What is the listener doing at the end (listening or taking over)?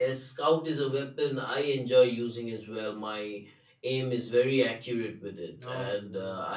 listening